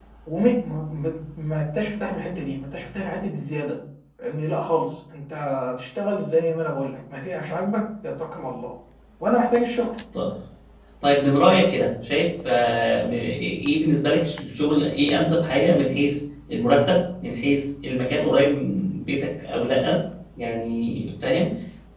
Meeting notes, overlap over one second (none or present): none